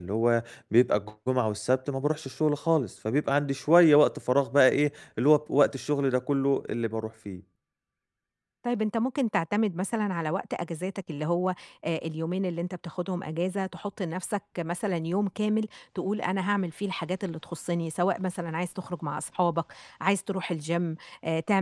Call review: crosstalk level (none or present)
none